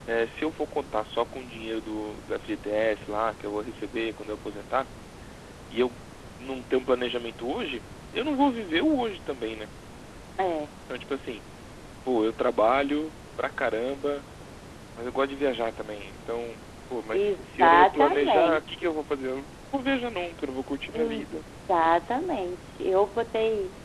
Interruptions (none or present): present